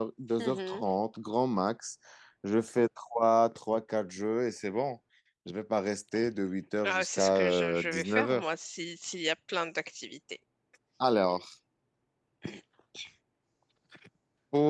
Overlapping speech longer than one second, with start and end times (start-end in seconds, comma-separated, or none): 6.8-8.4